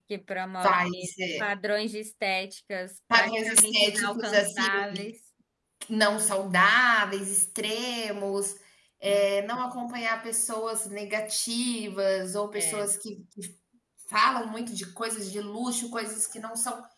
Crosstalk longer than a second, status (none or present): present